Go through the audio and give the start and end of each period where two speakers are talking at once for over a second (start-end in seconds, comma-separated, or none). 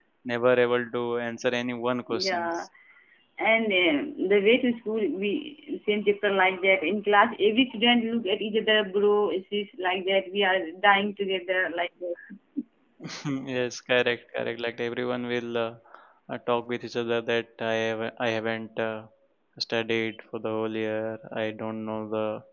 none